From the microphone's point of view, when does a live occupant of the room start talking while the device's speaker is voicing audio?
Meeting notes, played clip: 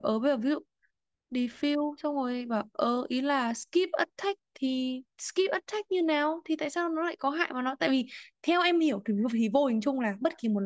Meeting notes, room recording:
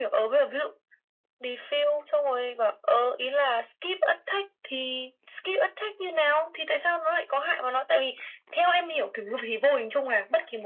none

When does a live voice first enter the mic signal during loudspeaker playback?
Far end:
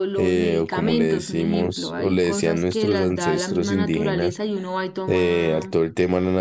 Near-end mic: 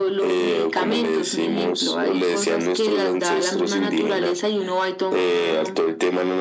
none

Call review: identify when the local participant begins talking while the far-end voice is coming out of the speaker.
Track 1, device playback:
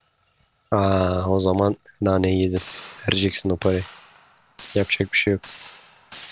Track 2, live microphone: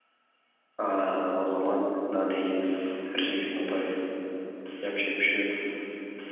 none

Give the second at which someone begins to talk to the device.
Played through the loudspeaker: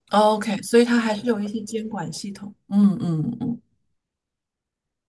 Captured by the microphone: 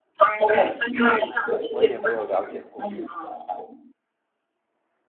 1.1 s

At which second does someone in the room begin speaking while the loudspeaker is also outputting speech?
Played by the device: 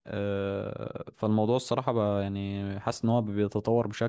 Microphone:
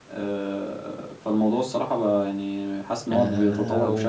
3.1 s

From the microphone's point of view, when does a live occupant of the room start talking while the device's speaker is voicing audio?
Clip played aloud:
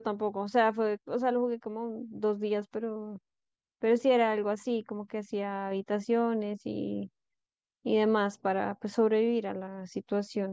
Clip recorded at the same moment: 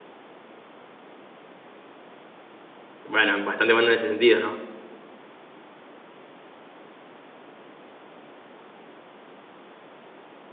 3.0 s

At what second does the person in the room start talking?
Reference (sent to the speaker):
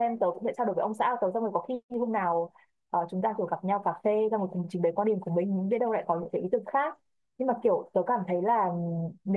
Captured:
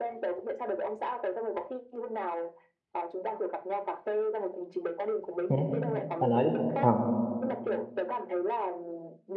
5.5 s

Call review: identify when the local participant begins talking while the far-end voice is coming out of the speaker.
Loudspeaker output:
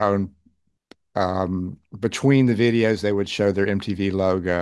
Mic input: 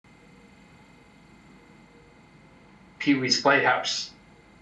3.0 s

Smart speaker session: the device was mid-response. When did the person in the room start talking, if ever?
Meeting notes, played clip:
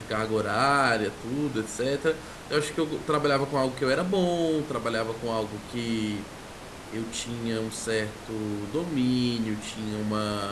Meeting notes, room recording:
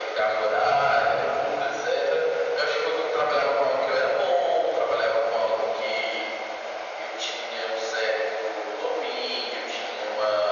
none

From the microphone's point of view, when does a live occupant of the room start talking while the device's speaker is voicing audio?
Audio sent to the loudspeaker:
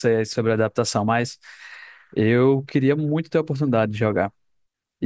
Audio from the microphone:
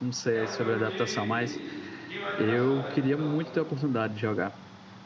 0.3 s

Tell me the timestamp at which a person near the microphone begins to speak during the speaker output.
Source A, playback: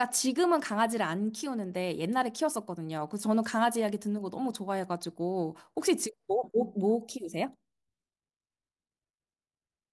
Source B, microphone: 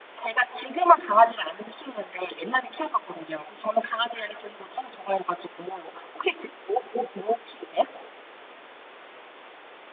none

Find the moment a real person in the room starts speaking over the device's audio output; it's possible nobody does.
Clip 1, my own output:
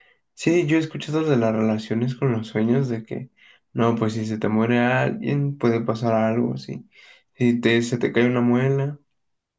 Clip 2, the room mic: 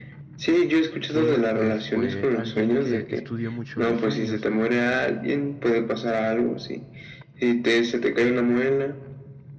1.1 s

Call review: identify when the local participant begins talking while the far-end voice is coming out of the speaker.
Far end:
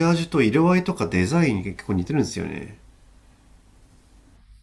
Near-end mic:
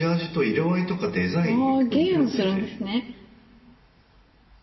1.4 s

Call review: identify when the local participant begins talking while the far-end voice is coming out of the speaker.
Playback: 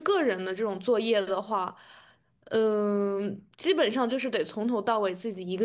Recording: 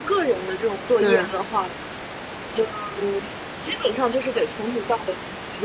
1.0 s

